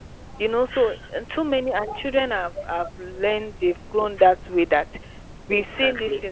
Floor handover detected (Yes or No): No